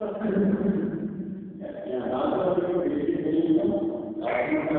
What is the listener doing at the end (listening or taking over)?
listening